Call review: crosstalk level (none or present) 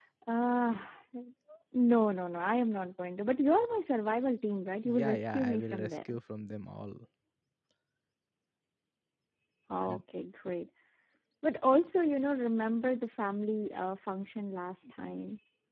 present